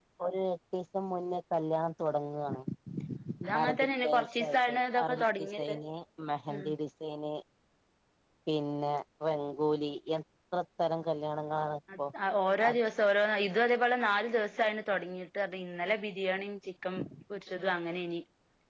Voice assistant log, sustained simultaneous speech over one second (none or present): present